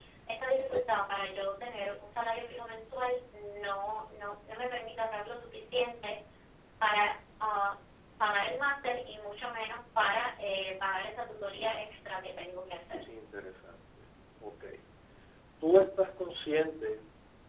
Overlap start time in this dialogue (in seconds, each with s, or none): none